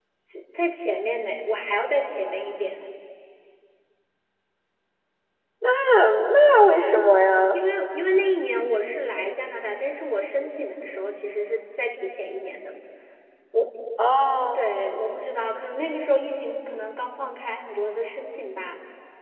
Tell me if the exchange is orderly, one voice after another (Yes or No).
Yes